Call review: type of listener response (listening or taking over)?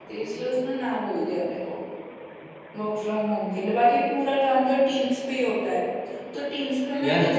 listening